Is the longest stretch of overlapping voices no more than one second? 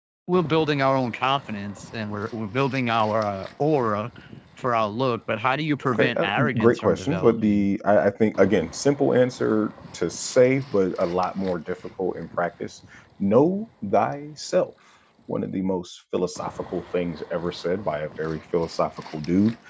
No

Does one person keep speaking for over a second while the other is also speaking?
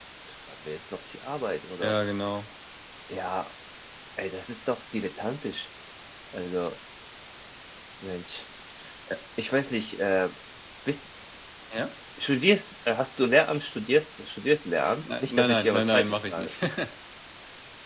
Yes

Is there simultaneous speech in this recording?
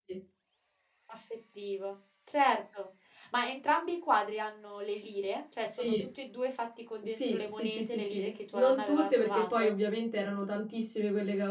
Yes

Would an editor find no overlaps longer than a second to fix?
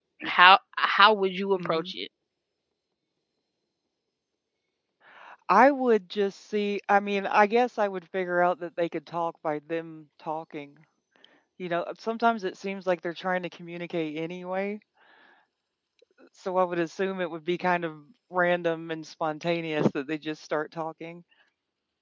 Yes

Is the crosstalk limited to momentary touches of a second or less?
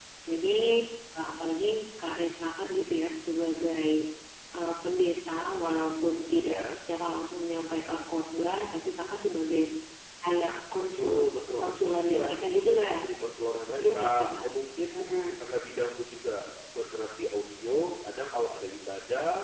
No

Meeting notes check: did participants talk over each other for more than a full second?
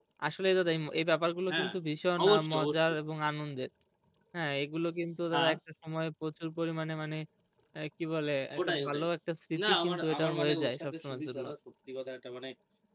Yes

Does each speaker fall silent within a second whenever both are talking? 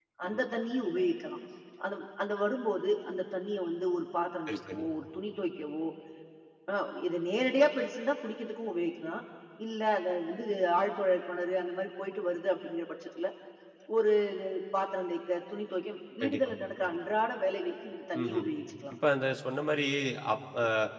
Yes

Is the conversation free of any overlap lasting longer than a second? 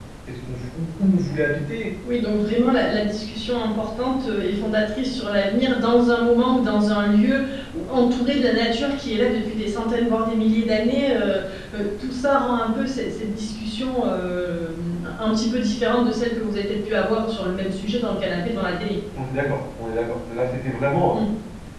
Yes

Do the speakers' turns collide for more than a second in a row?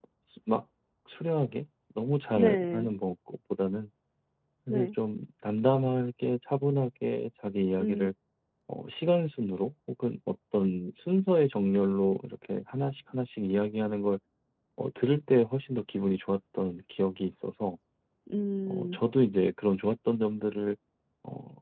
No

